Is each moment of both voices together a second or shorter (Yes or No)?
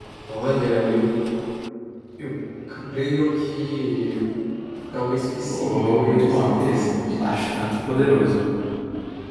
No